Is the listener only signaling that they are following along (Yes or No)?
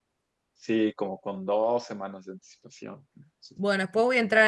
No